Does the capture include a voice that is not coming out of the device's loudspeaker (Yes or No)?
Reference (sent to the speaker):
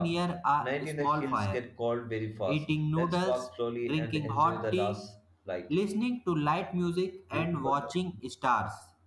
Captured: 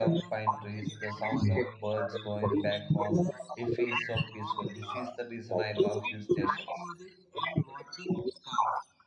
Yes